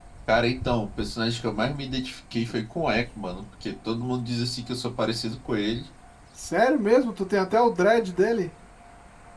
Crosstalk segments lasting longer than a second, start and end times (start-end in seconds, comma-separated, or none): none